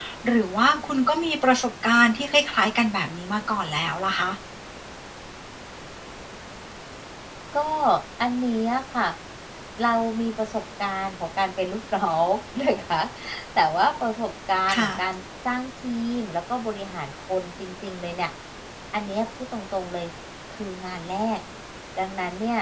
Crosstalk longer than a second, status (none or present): none